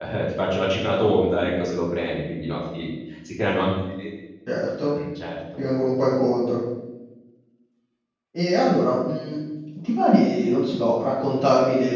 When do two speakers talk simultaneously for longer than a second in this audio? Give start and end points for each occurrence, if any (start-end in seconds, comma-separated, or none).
none